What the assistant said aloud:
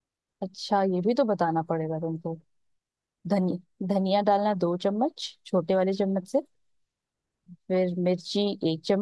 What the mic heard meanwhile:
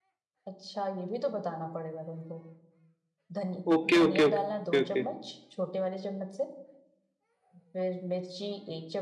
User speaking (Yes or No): Yes